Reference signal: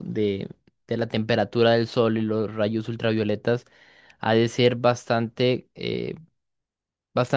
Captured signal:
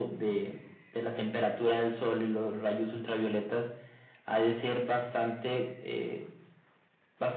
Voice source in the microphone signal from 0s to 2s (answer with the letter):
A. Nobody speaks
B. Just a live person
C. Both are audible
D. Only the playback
D